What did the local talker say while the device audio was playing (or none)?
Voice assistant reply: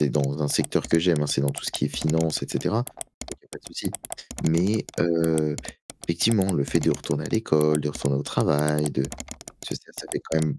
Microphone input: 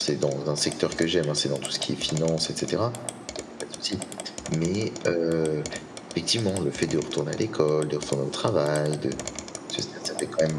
none